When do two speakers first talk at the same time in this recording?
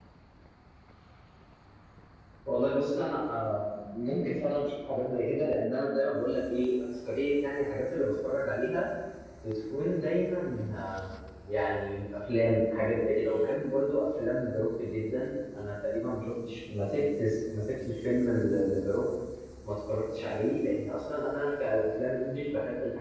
none

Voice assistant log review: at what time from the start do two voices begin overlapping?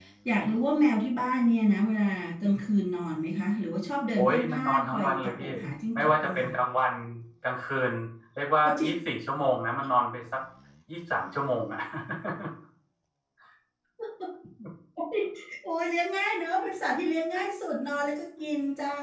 4.2 s

